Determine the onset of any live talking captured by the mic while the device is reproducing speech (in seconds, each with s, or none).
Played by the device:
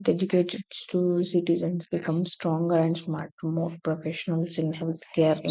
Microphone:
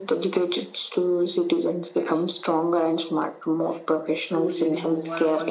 4.3 s